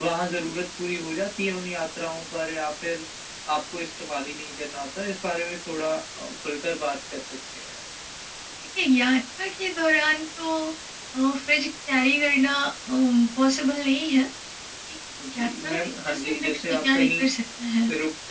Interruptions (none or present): present